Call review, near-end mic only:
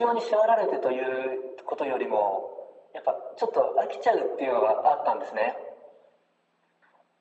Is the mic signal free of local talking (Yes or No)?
Yes